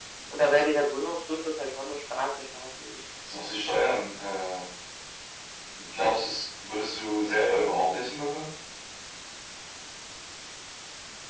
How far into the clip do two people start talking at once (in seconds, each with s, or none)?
none